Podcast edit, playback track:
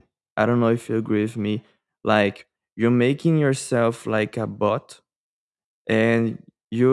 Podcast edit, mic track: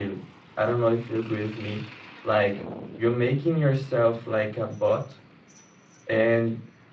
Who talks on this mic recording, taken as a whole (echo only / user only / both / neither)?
echo only